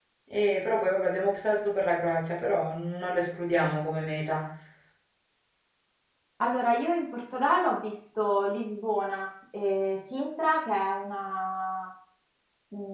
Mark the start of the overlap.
none

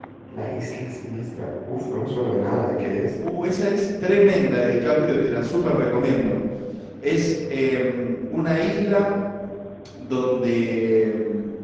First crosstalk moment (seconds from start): none

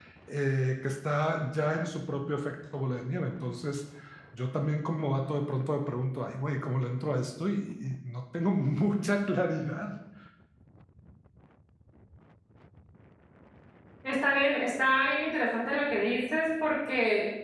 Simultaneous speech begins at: none

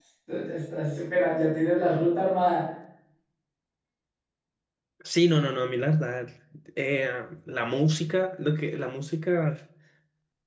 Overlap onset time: none

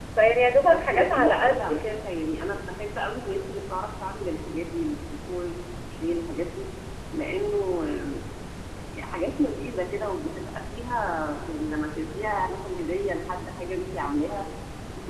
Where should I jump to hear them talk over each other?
0.6 s

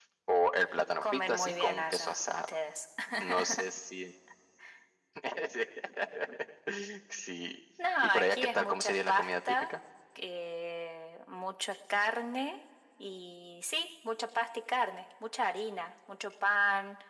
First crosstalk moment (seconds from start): 1.0 s

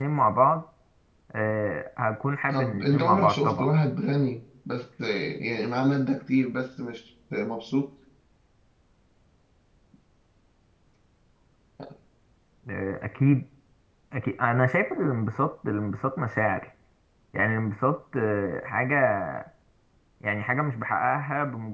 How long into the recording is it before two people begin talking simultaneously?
2.5 s

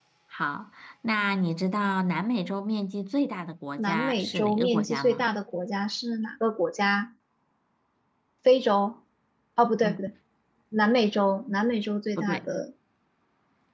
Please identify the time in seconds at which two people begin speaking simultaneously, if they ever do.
3.8 s

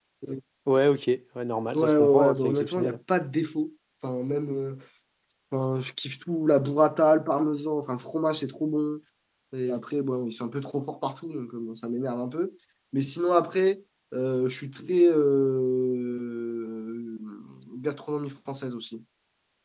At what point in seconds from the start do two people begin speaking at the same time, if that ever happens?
1.7 s

